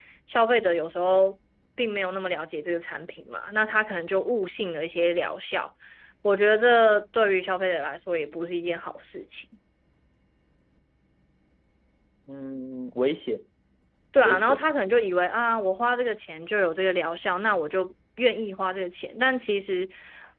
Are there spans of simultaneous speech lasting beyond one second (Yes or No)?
No